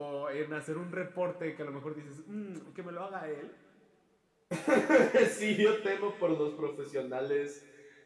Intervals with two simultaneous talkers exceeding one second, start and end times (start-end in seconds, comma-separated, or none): none